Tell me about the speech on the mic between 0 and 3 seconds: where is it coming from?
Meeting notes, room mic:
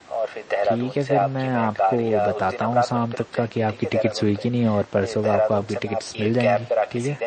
both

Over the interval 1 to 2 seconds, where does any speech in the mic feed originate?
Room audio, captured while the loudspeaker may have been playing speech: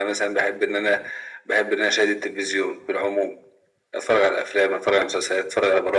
echo only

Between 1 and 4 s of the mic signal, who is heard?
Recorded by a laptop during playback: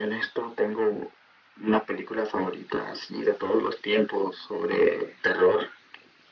echo only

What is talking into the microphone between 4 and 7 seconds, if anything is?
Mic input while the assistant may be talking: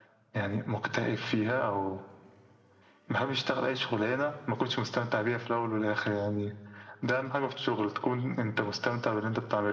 echo only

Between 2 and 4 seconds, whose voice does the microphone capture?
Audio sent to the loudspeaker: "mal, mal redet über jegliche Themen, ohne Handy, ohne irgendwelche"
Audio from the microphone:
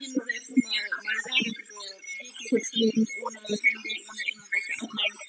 echo only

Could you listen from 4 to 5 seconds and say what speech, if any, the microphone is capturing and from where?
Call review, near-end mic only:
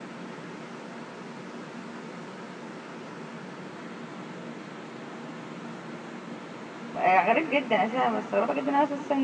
neither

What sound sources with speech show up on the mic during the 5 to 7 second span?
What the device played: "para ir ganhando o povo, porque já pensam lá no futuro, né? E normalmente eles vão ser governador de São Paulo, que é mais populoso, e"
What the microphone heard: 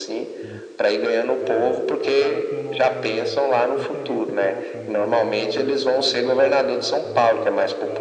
both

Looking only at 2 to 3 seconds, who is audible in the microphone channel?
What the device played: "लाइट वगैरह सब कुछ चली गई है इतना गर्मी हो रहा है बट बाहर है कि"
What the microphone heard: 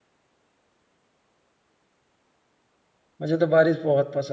neither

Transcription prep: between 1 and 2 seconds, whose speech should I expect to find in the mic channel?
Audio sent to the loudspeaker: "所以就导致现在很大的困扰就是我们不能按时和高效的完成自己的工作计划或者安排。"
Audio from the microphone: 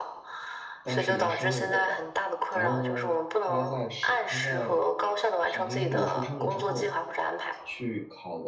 both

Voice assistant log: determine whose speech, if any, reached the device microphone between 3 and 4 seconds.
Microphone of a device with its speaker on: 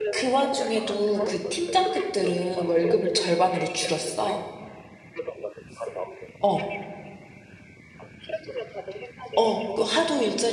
both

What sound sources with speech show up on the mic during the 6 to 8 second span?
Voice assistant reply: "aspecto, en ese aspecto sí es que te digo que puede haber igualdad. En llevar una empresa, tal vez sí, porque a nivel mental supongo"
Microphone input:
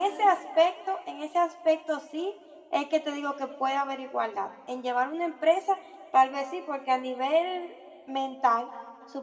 echo only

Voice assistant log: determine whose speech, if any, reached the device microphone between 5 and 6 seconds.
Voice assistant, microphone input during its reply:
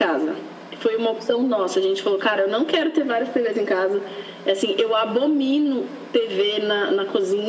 echo only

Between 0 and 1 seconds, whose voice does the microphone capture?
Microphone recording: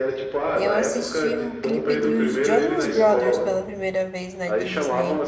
both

